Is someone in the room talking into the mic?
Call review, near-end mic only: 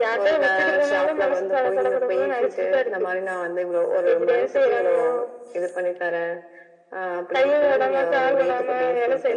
No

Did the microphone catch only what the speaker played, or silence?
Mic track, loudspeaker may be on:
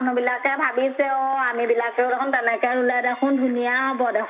Yes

